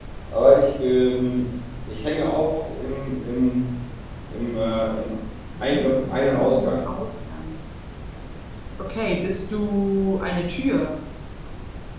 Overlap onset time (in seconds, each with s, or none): 5.6 s